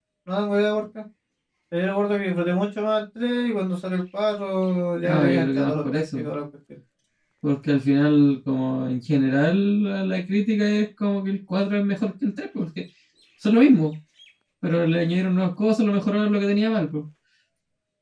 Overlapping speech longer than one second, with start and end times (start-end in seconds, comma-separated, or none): 5.0-6.3